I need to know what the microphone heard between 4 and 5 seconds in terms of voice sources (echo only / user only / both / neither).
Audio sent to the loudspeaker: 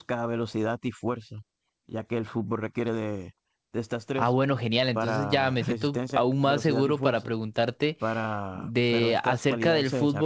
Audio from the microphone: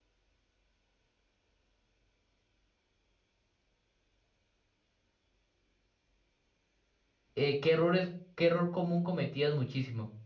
neither